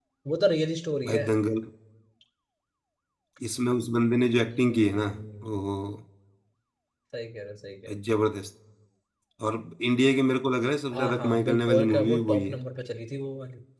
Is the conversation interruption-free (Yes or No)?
No